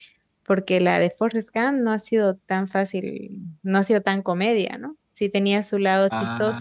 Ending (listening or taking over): listening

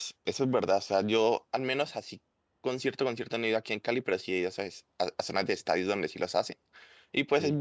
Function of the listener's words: listening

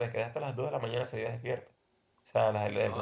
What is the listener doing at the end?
listening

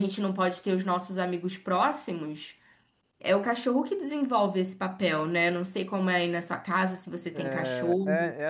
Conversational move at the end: taking over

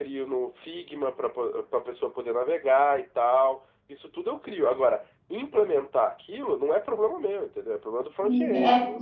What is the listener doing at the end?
taking over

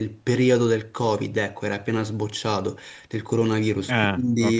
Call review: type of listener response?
listening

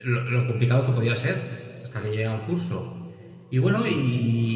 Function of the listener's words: listening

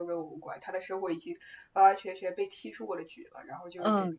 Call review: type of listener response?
taking over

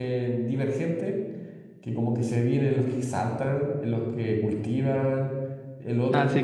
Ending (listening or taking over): taking over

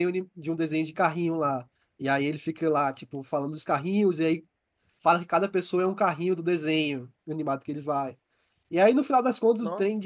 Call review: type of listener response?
listening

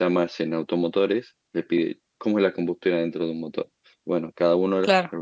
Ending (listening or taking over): listening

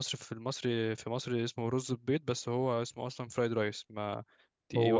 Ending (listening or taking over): taking over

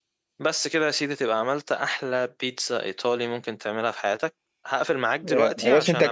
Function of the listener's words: taking over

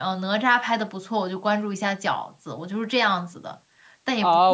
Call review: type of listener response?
taking over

